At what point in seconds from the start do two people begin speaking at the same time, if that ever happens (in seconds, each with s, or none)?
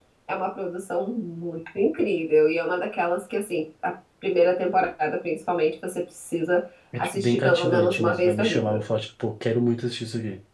6.9 s